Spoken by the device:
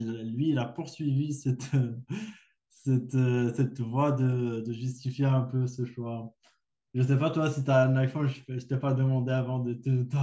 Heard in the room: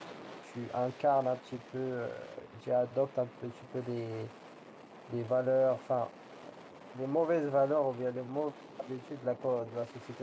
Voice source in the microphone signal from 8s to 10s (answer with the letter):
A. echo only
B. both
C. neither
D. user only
D